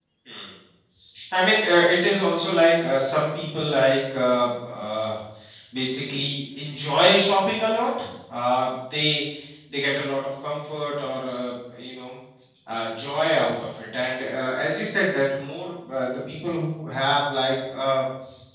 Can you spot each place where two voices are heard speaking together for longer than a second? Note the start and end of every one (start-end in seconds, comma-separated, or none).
none